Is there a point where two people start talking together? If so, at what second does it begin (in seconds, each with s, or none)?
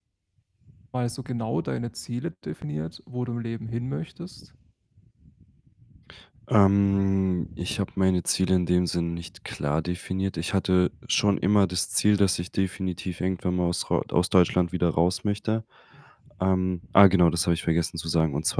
none